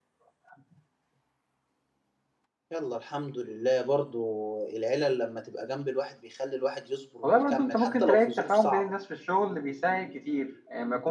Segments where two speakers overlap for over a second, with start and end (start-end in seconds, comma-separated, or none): 7.2-8.9